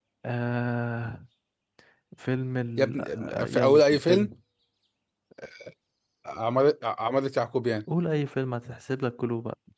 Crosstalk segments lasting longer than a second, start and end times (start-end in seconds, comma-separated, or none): 2.8-4.3